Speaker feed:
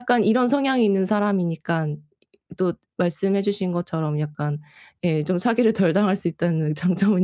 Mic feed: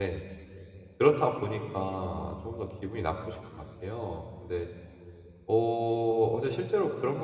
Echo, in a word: none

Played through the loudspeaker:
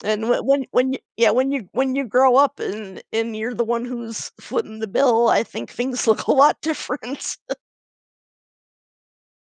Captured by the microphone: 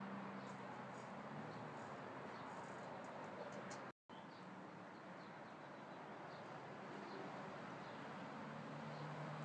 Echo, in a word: none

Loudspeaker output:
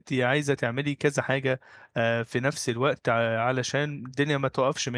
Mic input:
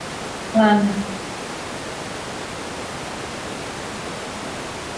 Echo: none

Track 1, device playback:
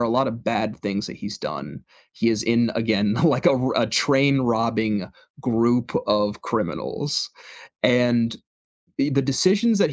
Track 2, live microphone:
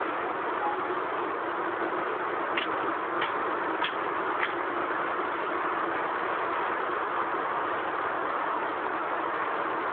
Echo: none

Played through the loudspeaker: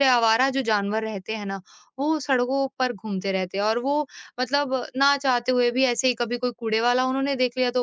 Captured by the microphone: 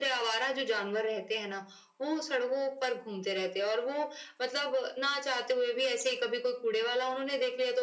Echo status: present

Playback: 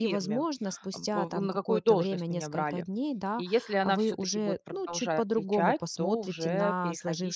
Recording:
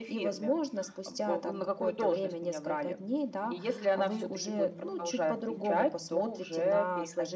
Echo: present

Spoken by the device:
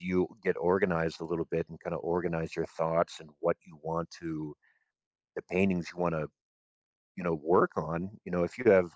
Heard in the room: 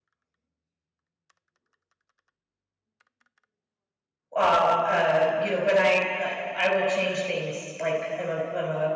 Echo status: none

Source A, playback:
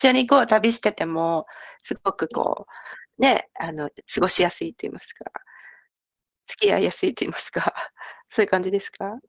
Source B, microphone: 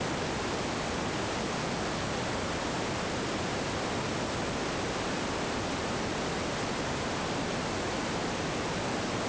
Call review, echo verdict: none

